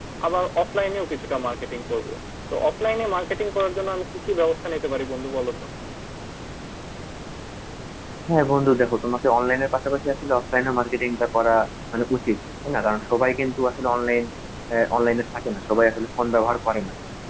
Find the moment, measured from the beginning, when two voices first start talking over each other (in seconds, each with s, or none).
none